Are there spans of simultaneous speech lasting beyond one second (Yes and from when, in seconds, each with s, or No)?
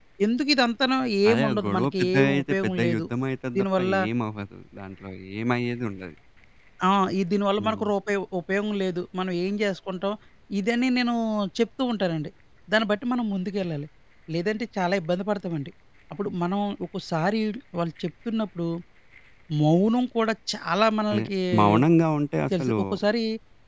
Yes, from 1.3 s